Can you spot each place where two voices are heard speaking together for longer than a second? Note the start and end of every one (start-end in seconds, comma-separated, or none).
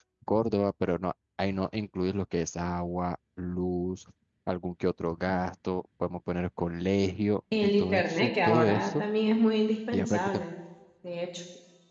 7.6-9.0